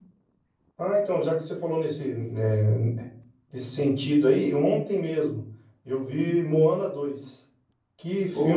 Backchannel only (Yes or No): Yes